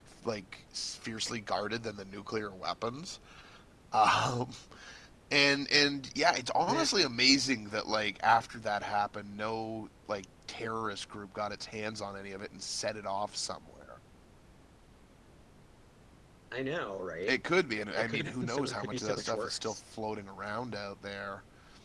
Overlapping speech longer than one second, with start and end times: 18.0-19.8

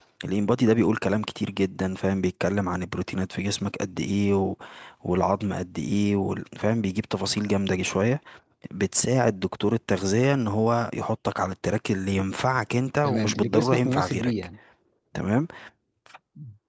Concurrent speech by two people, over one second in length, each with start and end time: 13.0-14.3

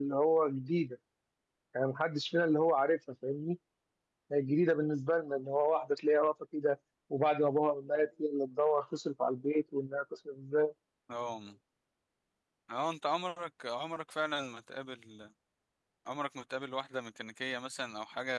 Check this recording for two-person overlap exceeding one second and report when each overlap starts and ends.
none

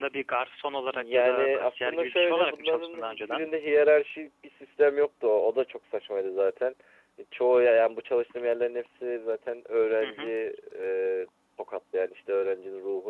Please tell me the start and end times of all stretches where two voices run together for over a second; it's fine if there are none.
0.9-3.5

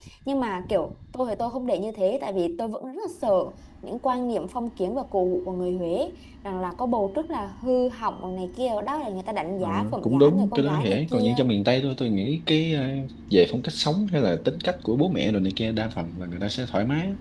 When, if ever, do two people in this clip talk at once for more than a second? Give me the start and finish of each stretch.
9.6-11.3

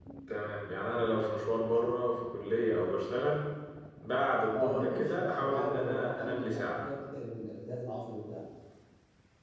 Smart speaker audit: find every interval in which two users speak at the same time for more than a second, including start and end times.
4.5-6.8

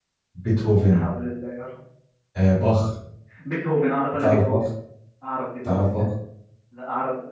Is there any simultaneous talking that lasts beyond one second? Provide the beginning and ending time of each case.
none

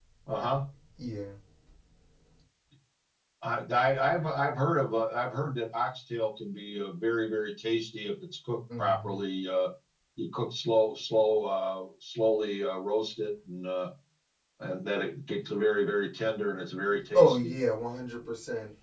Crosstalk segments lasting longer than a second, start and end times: none

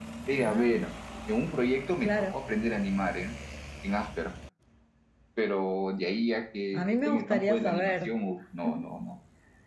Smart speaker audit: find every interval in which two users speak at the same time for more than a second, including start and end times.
6.7-8.1

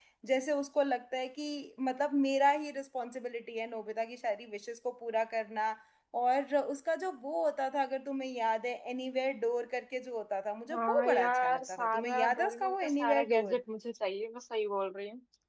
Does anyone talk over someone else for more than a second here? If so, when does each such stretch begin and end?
10.7-13.6

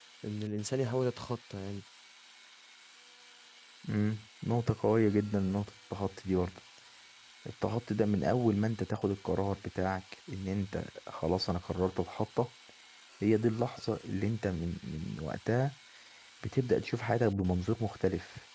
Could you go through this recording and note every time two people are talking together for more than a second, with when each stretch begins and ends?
none

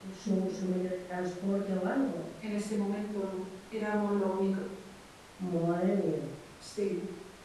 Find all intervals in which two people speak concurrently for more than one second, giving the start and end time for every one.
none

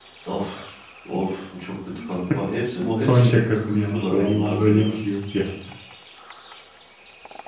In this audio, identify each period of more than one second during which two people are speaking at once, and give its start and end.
3.0-4.9

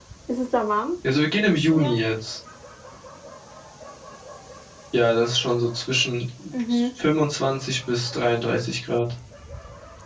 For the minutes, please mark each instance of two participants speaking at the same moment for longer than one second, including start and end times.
none

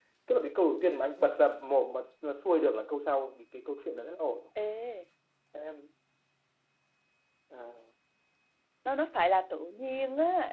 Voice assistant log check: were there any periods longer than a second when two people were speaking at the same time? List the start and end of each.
none

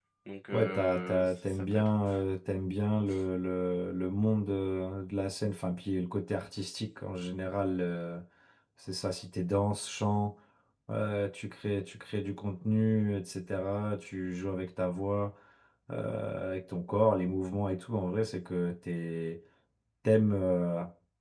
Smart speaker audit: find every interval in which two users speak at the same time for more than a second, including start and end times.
0.5-2.2

